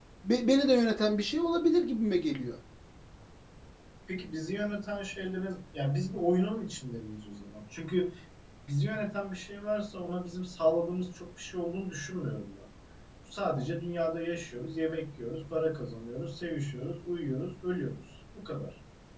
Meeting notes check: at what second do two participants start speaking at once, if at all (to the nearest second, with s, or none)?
none